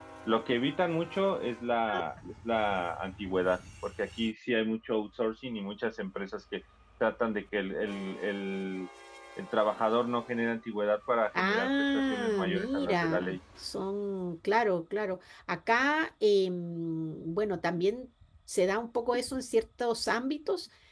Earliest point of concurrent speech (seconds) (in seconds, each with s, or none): 11.3 s